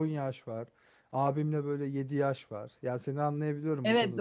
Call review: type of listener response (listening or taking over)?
taking over